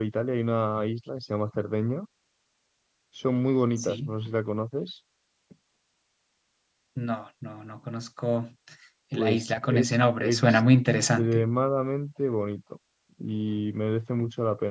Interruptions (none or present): present